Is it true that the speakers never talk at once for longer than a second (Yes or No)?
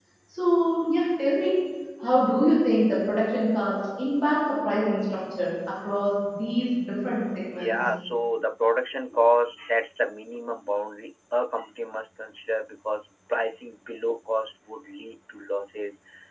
Yes